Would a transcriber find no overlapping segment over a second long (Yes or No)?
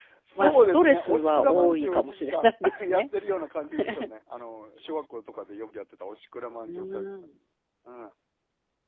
No